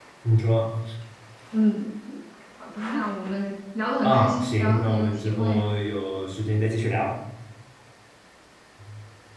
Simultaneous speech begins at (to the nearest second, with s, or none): 4 s